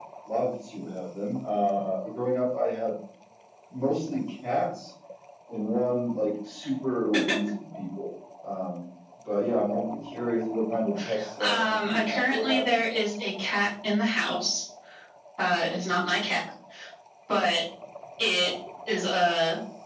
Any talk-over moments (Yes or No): Yes